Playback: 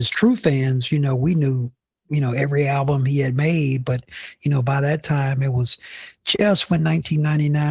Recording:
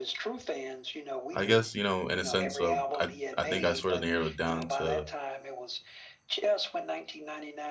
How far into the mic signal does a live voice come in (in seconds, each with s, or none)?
1.3 s